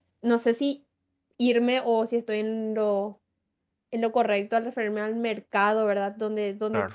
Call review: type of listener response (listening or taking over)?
listening